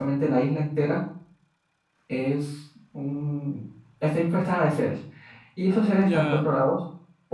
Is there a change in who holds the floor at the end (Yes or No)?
No